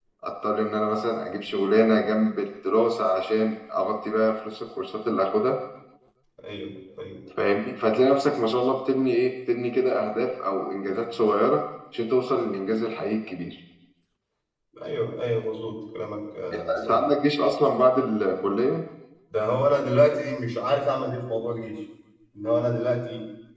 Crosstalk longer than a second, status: none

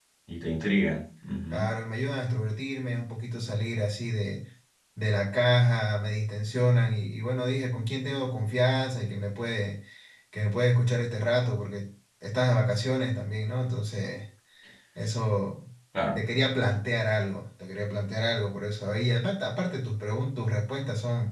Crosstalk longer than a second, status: none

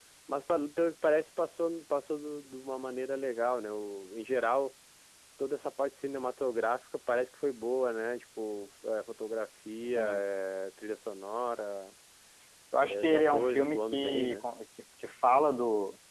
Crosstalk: present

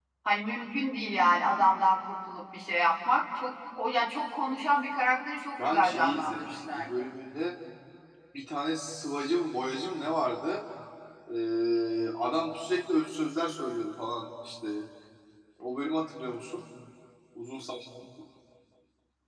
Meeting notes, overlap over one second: present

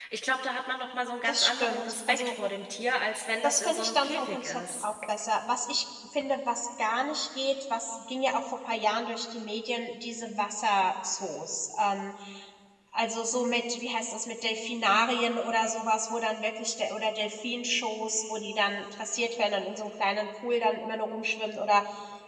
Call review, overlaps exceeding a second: present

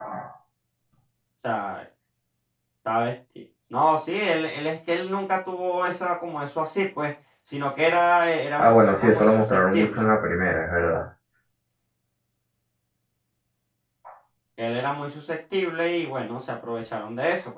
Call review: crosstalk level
present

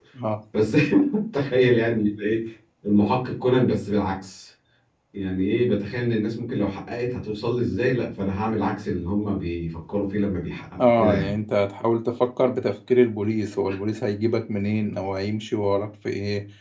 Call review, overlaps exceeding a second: none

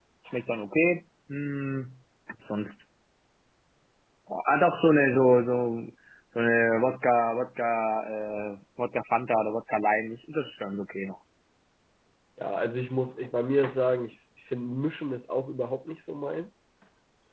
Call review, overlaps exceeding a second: none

